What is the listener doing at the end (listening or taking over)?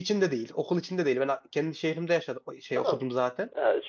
taking over